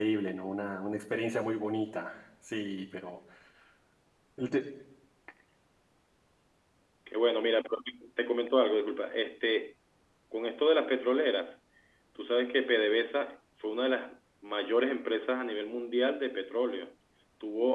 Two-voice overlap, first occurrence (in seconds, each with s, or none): none